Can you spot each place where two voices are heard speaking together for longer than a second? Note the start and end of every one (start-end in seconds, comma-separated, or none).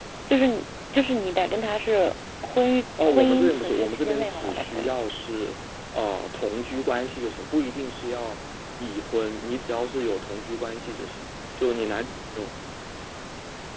3.1-4.9